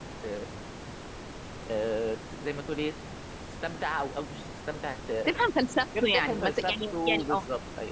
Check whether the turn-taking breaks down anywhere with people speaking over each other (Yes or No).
Yes